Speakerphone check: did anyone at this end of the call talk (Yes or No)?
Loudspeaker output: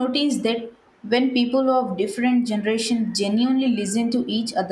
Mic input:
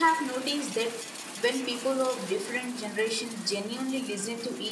No